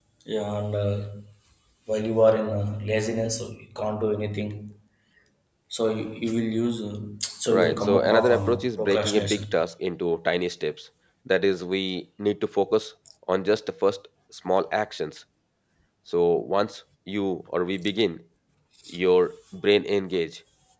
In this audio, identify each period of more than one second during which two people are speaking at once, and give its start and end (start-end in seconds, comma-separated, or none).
7.5-9.4